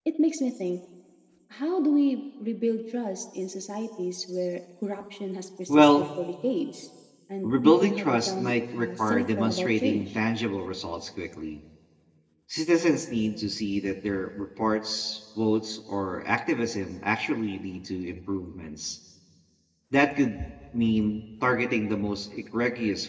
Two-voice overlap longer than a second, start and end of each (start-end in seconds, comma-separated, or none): 7.4-10.2